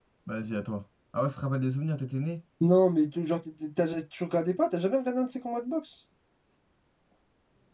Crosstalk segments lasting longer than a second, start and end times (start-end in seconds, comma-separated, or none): none